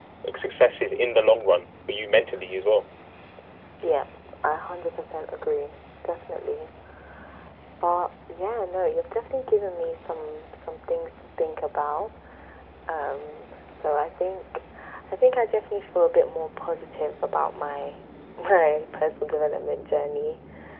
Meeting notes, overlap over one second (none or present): none